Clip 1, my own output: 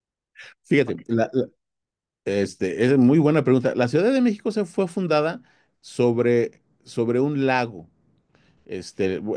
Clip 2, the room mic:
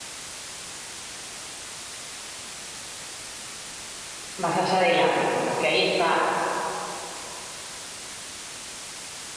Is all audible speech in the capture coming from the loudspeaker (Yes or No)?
No